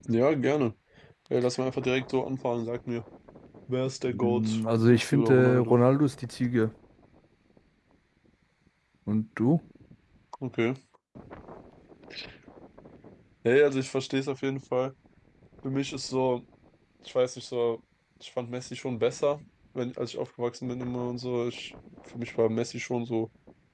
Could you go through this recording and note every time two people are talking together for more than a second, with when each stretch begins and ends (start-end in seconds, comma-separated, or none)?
4.1-5.8